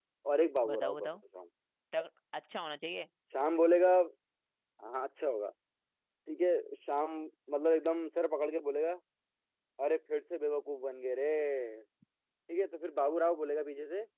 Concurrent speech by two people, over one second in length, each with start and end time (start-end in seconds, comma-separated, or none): none